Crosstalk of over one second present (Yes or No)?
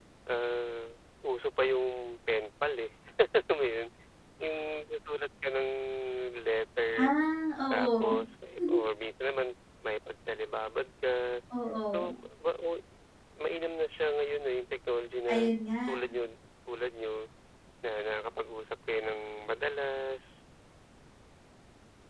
No